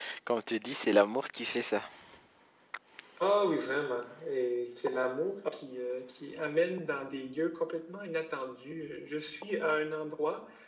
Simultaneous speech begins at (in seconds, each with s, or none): none